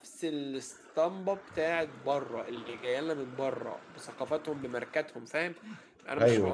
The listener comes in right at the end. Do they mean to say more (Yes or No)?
No